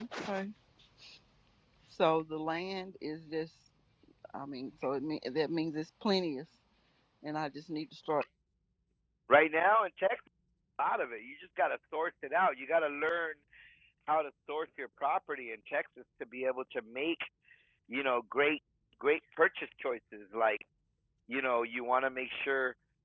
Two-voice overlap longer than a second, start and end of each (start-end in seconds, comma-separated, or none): none